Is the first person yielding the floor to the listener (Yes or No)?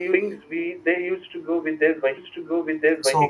Yes